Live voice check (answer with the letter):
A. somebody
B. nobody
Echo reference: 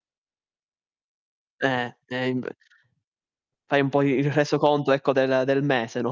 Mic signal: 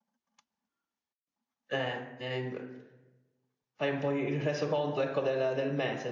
B